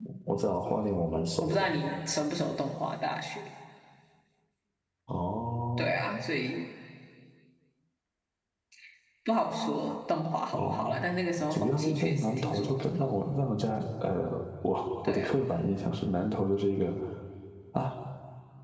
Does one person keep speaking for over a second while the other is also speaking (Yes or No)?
Yes